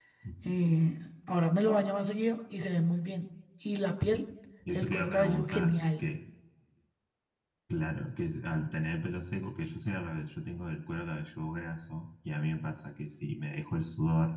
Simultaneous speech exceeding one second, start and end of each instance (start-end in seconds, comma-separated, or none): 4.7-6.1